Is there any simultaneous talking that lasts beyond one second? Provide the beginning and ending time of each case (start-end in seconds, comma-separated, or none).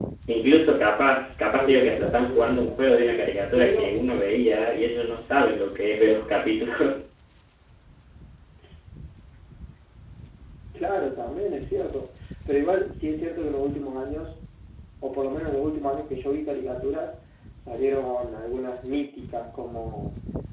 1.6-3.1